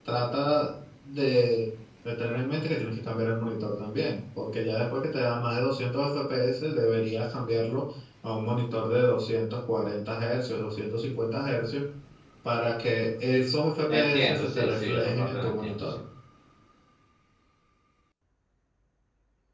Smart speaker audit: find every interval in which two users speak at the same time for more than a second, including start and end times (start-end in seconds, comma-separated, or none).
13.9-16.0